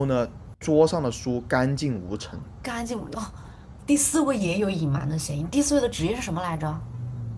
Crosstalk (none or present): none